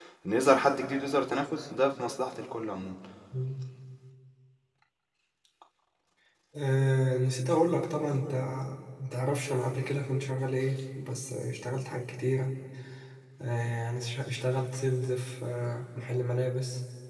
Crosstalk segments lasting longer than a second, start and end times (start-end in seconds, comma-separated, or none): none